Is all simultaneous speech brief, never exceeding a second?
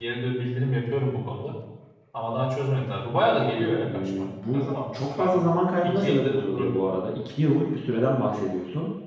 No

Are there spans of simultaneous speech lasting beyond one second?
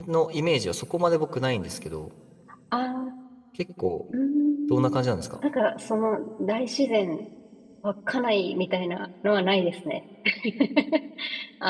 No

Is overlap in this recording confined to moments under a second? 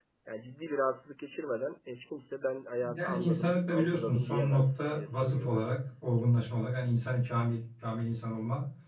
No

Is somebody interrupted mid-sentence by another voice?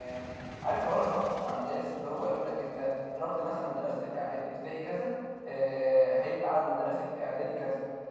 No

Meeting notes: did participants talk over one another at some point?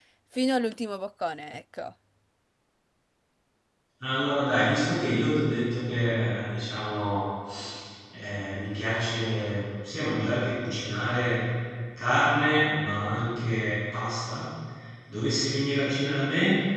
No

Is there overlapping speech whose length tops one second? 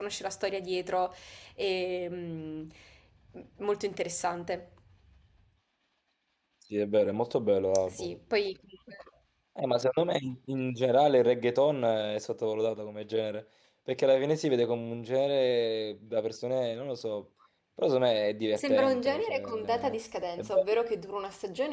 Yes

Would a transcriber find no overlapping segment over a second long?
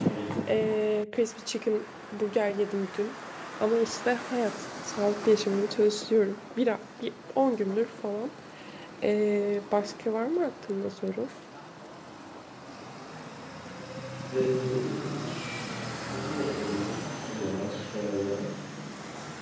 Yes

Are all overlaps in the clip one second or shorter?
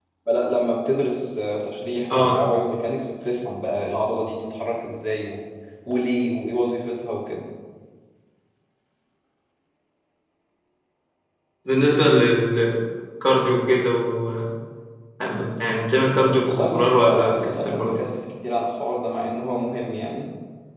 No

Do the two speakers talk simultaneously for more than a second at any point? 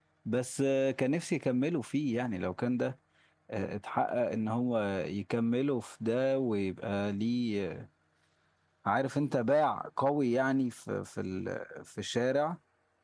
No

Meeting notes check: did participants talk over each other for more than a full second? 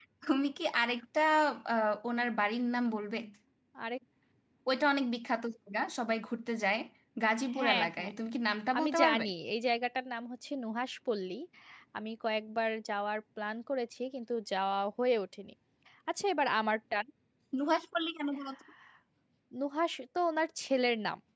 No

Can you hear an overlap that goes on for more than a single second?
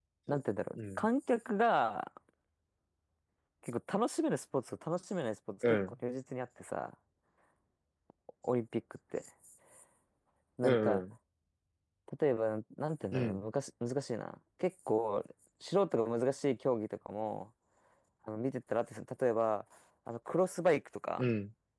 No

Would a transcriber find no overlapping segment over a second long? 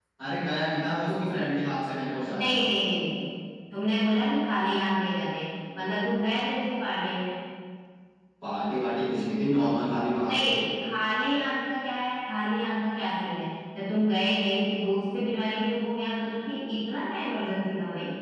Yes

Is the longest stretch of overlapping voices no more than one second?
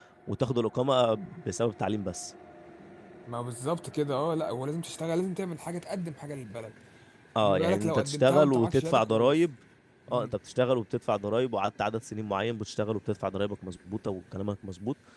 No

